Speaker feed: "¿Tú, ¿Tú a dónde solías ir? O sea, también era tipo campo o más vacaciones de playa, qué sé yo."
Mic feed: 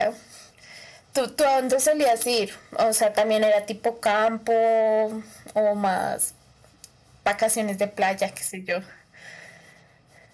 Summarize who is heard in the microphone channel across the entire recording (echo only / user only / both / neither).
echo only